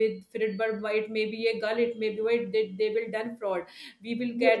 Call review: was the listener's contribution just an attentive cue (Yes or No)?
Yes